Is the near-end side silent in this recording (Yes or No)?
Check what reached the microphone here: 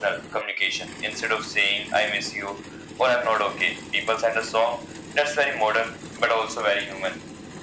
Yes